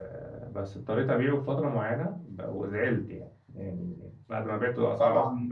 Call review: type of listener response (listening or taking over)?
listening